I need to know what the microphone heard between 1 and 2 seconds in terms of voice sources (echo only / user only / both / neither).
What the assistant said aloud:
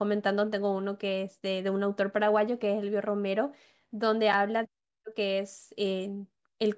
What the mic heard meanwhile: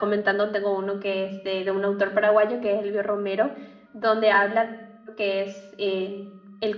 echo only